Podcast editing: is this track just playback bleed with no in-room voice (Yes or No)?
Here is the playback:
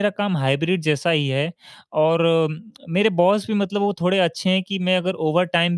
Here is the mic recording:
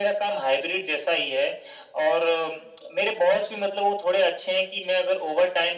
Yes